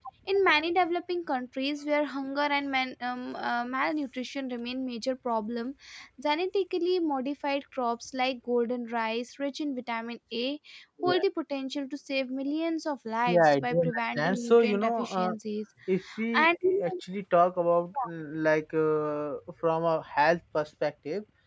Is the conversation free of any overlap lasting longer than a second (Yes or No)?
No